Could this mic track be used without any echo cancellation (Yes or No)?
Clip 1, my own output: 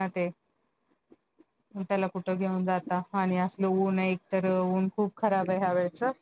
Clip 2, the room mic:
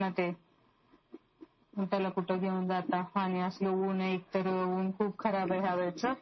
No